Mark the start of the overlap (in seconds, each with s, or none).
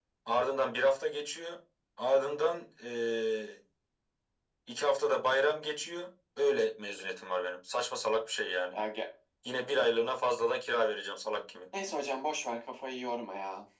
none